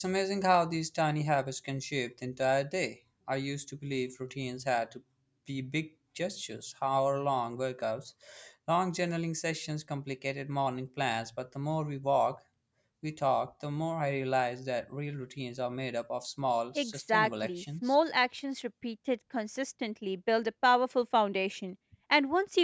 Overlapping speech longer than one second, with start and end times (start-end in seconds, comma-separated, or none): 16.8-17.9